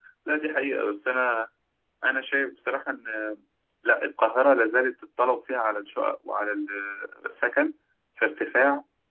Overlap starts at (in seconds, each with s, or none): none